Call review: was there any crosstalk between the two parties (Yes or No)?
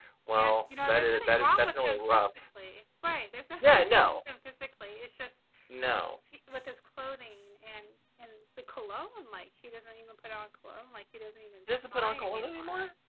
Yes